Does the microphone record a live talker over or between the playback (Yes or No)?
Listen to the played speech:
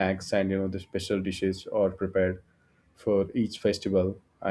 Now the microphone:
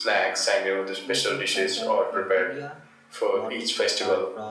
Yes